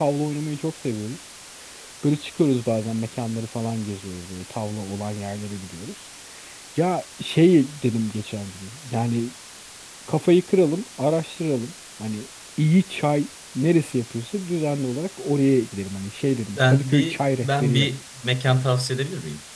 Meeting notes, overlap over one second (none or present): present